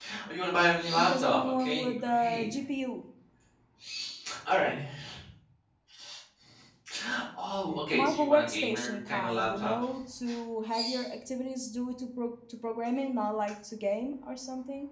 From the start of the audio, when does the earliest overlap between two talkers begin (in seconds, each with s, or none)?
1.0 s